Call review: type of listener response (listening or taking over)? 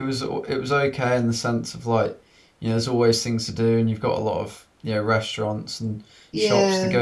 listening